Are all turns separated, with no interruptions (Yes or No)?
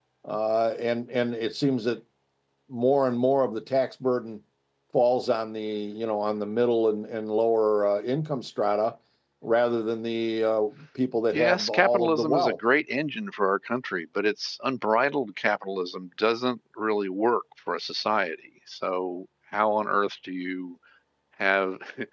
No